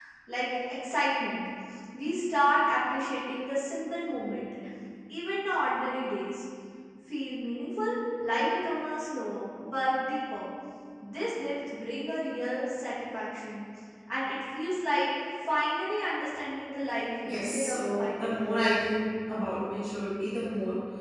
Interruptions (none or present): present